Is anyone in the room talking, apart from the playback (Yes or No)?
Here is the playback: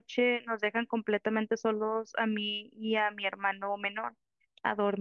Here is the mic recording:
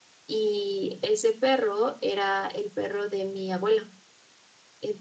Yes